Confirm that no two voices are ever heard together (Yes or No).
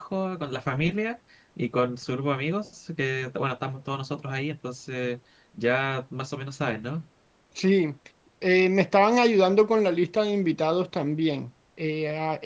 Yes